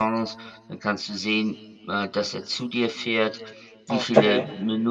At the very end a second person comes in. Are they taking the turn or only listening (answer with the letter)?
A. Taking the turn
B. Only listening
B